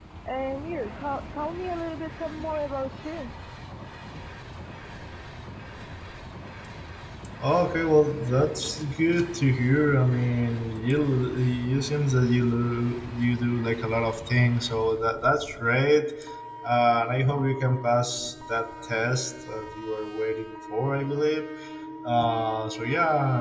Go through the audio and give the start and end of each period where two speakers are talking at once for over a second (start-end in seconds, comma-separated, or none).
none